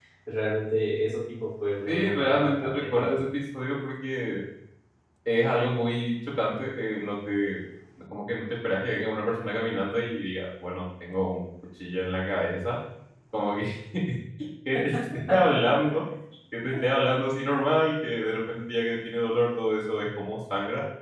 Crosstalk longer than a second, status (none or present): present